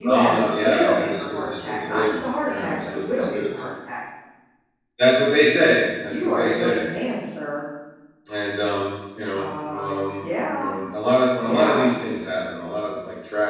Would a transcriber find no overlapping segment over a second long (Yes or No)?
No